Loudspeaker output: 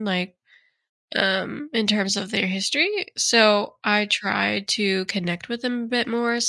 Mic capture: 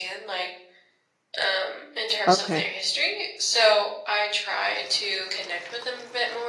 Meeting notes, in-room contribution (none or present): present